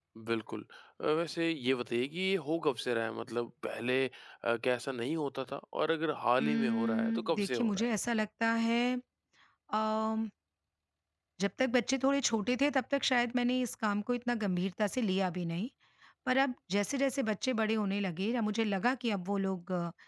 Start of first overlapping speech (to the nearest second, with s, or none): 6 s